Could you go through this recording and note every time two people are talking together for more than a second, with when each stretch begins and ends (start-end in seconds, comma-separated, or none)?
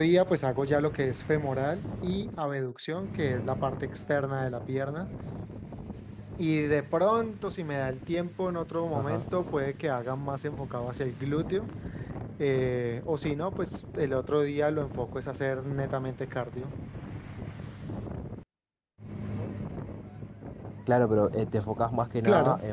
none